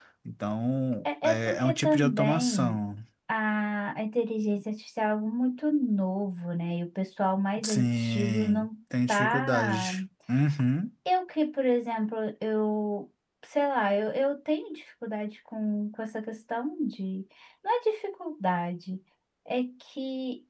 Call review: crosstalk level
present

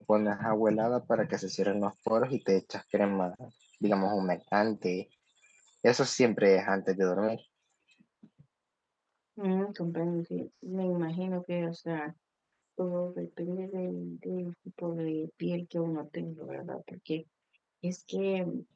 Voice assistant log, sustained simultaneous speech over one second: none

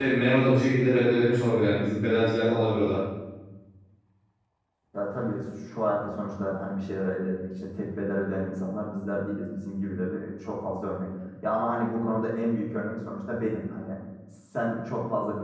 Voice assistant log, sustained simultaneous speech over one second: none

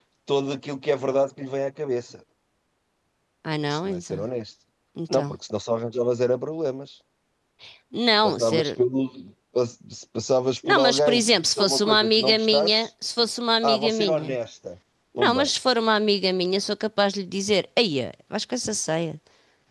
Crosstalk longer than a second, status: present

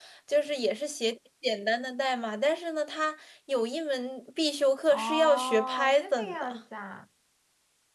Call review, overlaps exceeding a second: present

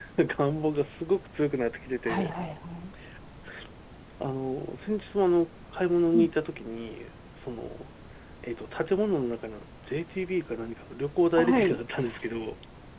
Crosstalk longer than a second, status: none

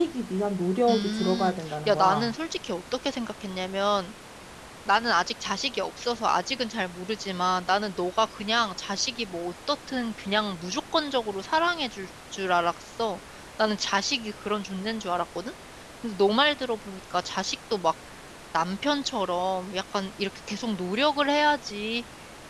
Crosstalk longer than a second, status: present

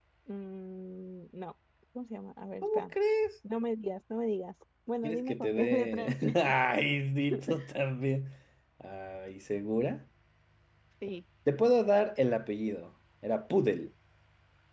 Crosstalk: present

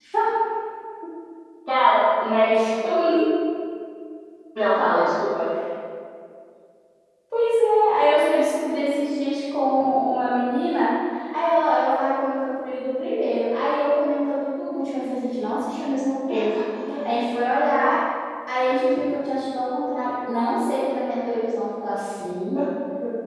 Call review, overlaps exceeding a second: none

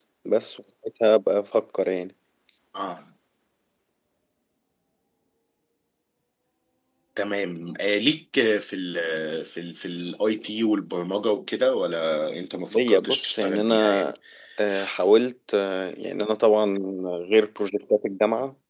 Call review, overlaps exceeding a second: present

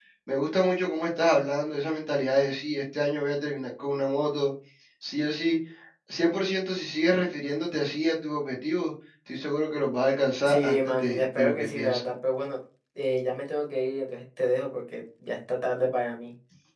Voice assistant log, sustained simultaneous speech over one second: present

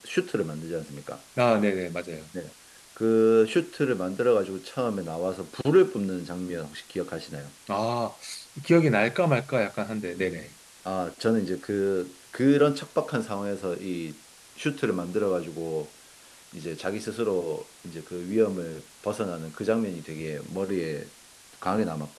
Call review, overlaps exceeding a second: none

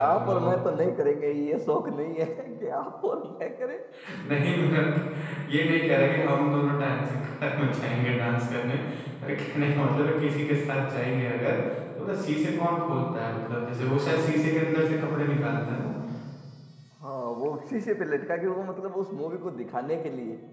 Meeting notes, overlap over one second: none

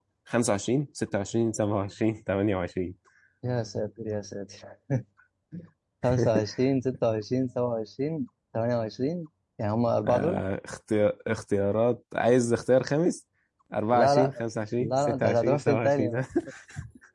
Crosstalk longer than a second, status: present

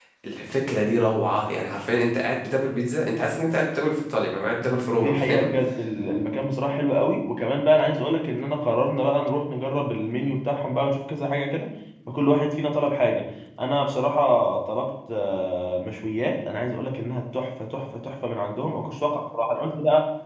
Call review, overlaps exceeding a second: none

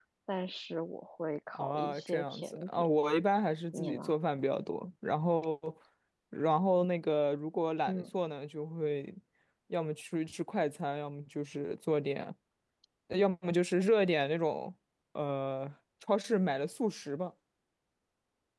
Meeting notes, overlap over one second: present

